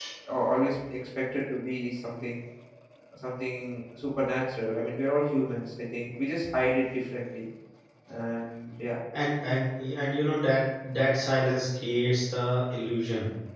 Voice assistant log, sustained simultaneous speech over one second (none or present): none